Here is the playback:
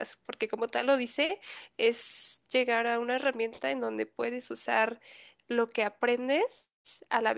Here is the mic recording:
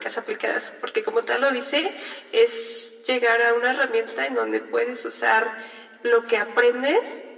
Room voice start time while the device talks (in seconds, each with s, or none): none